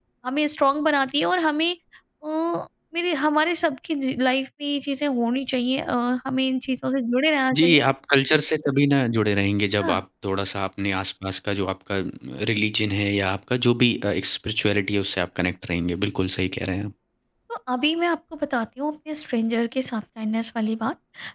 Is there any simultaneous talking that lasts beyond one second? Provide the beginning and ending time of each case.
none

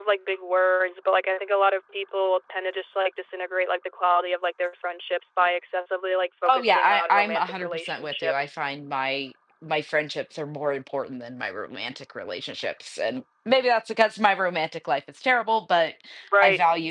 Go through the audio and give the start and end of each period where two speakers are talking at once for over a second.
6.5-8.6

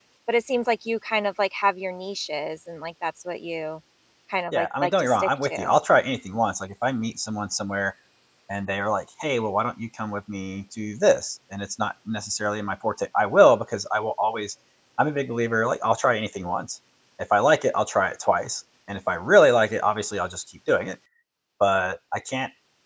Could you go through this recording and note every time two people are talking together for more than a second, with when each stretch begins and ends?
4.5-5.8

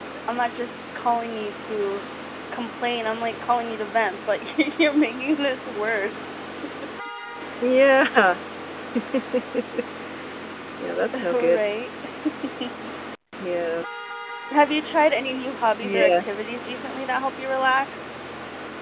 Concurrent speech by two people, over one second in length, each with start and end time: none

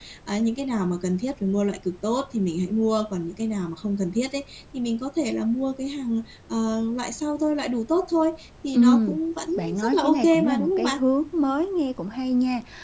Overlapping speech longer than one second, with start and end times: 9.6-11.0

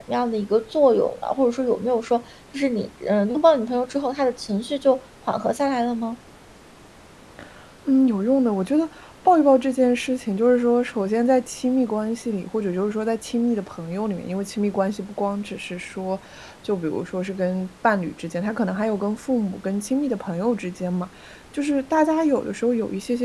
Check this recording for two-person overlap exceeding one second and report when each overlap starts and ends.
none

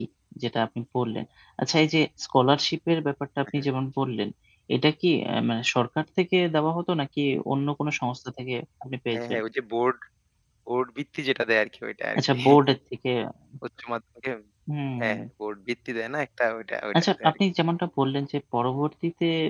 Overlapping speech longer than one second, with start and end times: none

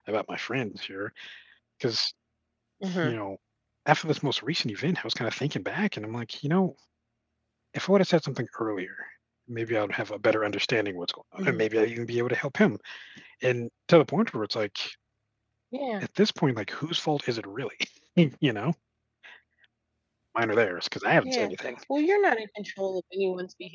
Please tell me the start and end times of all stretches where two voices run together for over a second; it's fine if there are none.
none

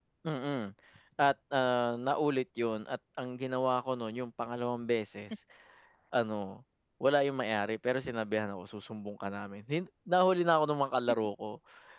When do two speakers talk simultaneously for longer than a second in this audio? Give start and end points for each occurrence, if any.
none

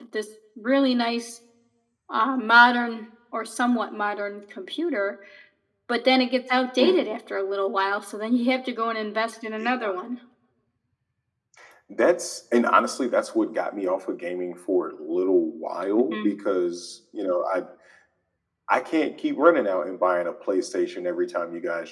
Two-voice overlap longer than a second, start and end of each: none

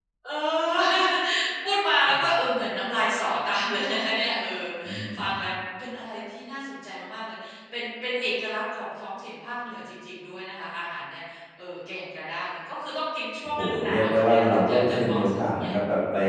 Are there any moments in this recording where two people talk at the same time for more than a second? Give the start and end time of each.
13.4-15.7

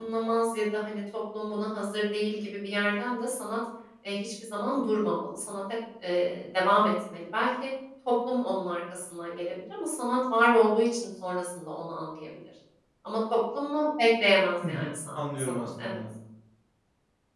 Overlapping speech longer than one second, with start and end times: 14.7-16.0

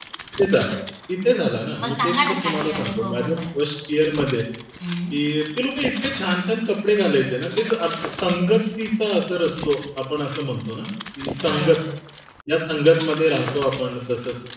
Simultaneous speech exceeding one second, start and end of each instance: 1.8-3.6

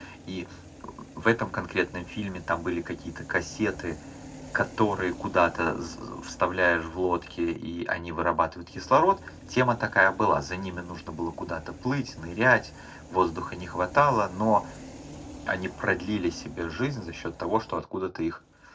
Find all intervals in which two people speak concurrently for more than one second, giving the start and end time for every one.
none

